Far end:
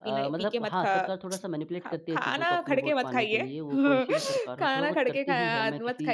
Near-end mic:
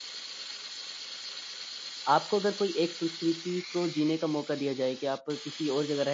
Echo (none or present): none